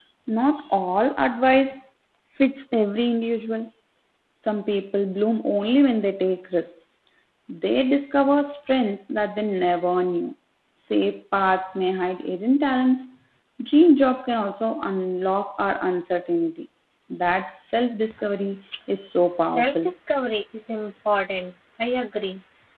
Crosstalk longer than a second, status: none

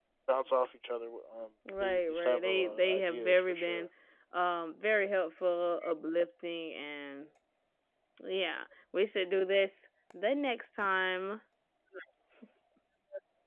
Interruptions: present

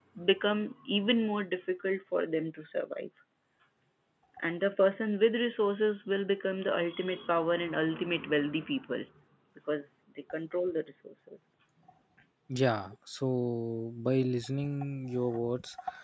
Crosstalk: none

